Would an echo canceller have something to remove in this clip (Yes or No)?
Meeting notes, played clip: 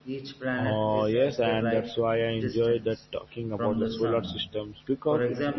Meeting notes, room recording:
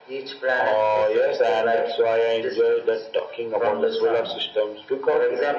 Yes